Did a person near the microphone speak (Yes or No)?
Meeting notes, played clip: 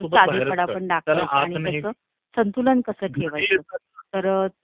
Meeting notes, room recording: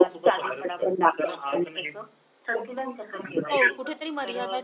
Yes